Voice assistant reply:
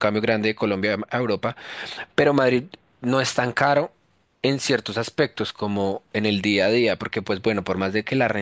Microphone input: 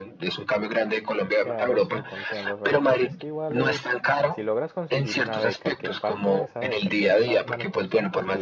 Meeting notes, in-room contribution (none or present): present